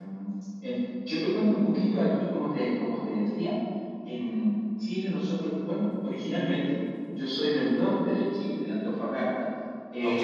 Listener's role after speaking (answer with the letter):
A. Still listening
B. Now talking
A